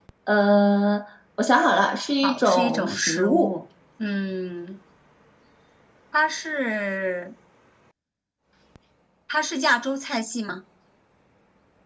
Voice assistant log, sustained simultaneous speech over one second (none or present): present